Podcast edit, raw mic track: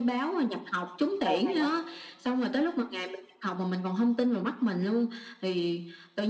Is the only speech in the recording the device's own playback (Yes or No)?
No